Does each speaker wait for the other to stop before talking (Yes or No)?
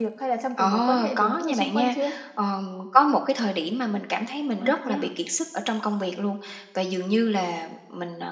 No